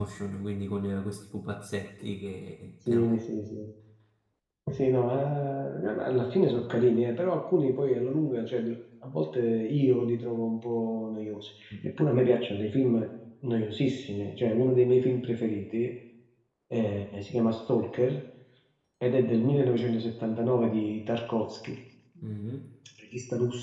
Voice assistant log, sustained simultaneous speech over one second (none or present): none